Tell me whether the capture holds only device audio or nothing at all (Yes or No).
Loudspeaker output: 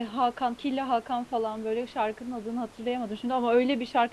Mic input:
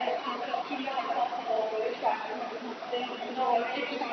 Yes